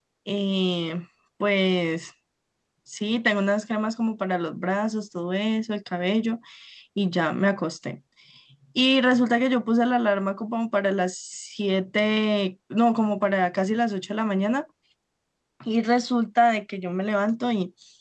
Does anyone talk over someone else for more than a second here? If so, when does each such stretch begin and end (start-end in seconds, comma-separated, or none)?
none